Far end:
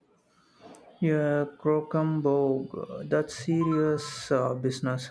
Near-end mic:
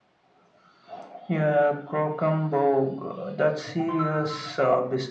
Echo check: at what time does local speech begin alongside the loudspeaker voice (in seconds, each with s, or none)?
none